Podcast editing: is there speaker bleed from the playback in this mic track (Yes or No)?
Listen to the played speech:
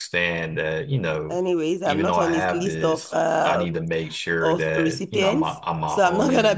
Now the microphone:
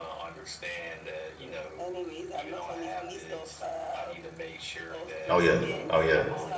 Yes